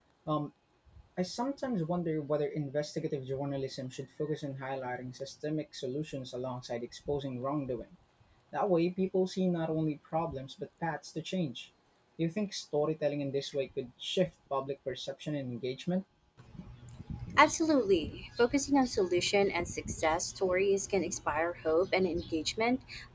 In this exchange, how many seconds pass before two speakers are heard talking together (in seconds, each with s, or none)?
none